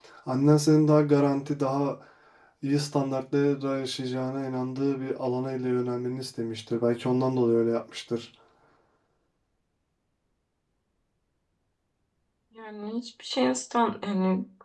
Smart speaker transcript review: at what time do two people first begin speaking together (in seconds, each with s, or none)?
none